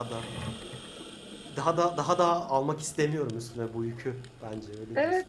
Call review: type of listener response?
taking over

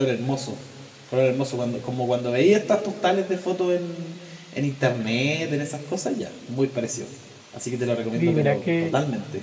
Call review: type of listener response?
taking over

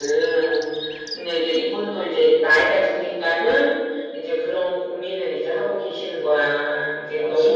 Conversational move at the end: listening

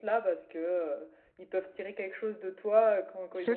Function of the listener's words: listening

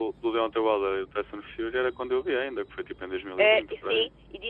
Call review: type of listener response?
taking over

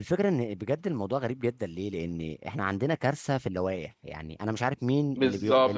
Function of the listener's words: taking over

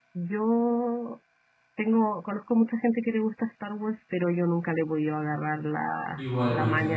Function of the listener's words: taking over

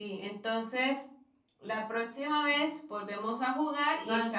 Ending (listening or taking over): listening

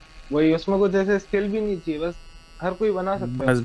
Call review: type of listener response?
taking over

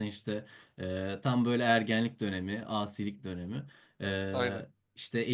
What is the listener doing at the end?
listening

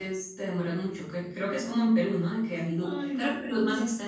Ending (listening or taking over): listening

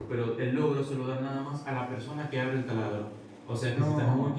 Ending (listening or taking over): listening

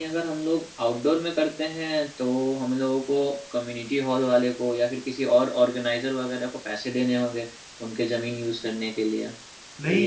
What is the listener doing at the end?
taking over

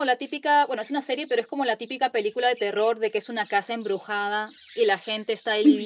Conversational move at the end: listening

